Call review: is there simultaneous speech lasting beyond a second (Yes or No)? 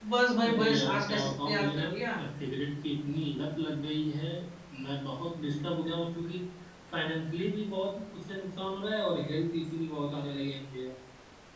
Yes